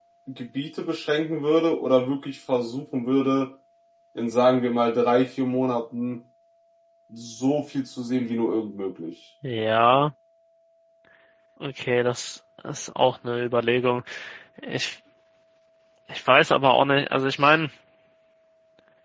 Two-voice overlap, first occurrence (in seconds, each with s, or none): none